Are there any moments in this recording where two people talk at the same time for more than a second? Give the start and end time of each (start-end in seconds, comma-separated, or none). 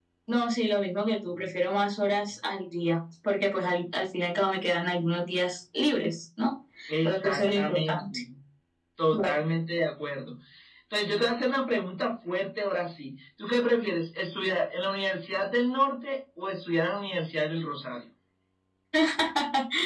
6.9-8.2